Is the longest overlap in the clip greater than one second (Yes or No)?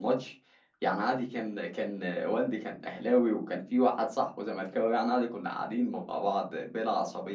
No